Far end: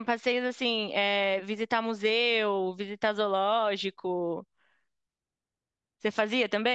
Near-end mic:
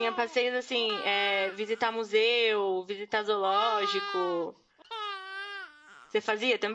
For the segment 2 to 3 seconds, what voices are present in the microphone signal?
echo only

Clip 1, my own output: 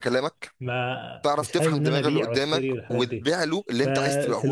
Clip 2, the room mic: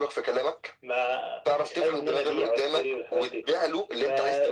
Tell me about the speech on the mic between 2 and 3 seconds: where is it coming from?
echo only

